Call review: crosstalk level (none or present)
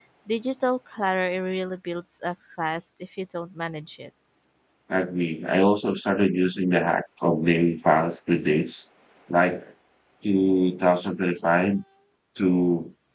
none